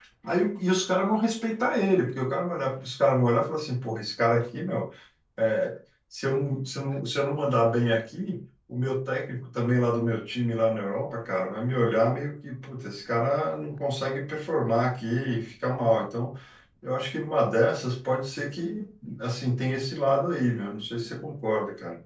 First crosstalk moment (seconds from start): none

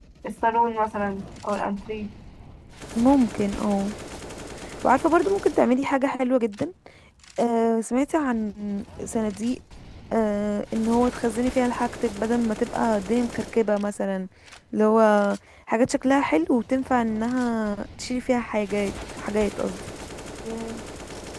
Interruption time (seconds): none

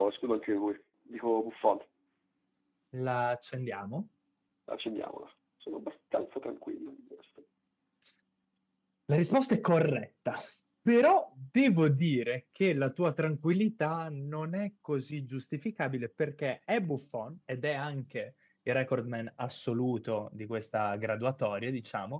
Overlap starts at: none

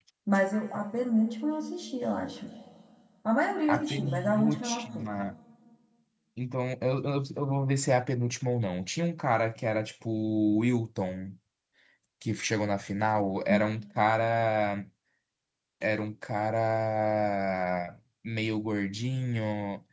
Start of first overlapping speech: 4 s

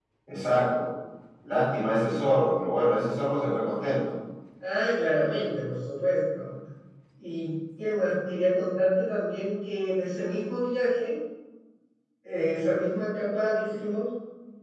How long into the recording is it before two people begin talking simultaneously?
none

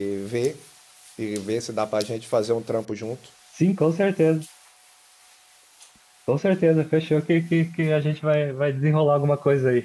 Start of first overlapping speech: none

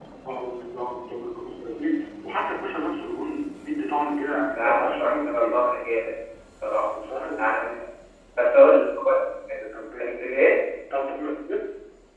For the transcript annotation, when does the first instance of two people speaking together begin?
4 s

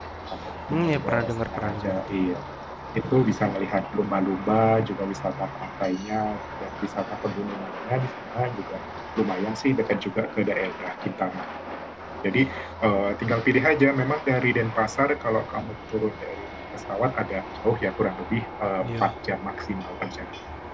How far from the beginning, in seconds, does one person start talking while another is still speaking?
1 s

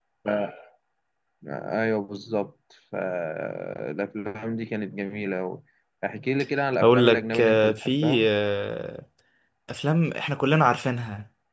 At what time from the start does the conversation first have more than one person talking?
7 s

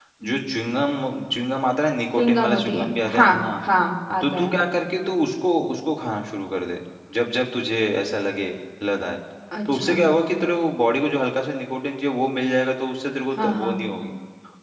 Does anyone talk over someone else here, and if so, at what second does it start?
2 s

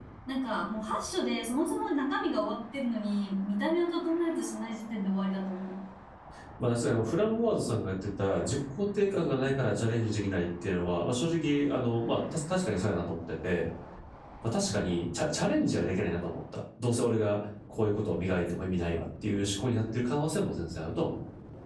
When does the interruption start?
none

